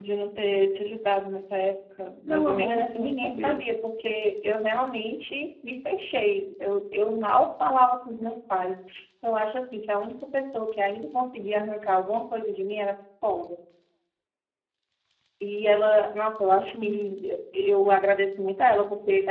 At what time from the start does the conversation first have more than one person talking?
2.3 s

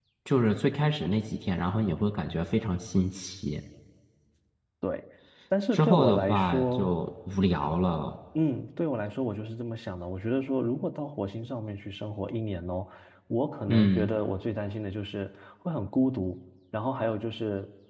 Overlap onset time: 5.7 s

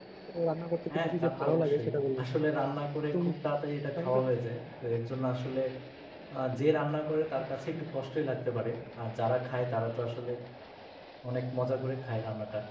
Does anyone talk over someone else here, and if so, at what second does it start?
0.9 s

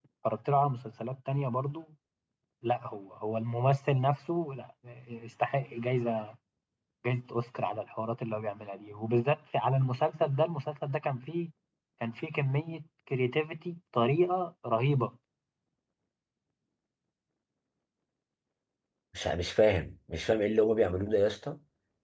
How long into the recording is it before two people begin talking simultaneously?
none

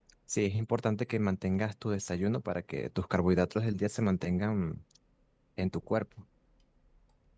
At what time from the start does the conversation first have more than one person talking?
none

